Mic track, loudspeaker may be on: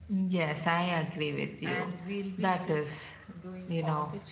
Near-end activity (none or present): present